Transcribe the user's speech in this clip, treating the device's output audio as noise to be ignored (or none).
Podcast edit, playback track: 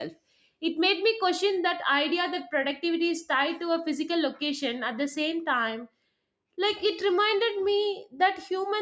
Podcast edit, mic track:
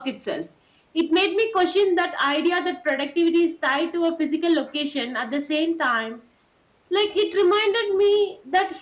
none